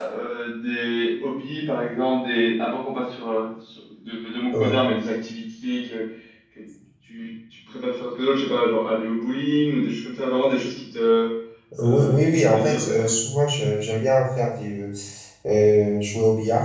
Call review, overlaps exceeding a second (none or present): present